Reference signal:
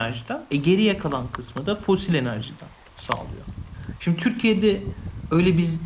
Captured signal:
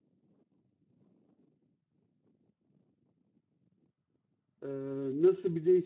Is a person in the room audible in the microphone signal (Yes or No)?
Yes